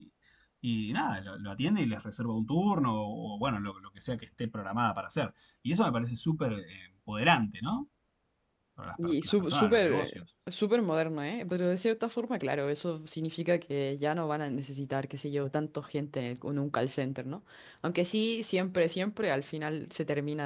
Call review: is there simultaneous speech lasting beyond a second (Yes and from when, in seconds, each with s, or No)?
Yes, from 9.0 s